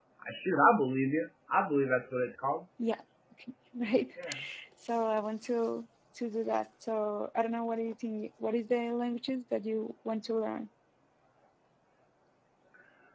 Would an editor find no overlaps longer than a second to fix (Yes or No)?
Yes